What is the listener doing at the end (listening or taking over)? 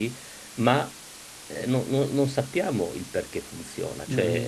taking over